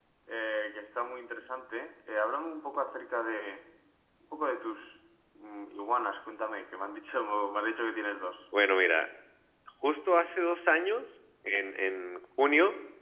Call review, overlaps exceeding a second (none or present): none